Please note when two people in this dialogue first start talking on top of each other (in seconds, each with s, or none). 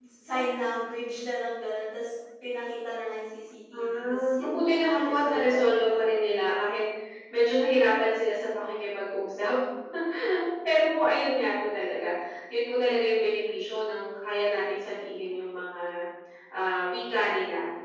3.7 s